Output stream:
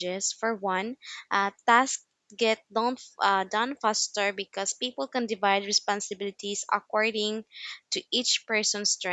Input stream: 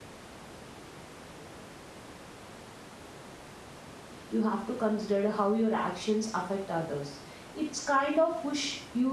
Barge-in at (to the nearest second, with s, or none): 4 s